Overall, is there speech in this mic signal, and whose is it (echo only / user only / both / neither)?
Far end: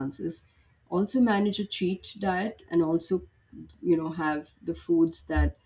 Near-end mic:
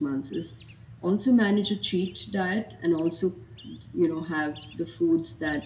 echo only